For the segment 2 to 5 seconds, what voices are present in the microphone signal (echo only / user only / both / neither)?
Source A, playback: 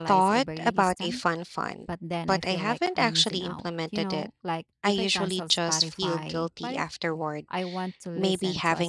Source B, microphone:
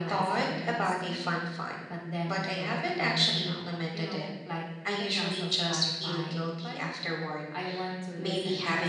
echo only